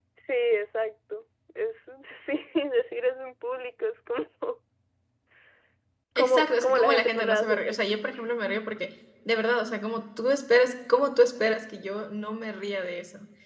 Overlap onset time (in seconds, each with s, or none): 6.2 s